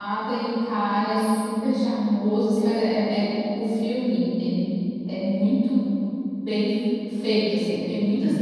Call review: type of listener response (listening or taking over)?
listening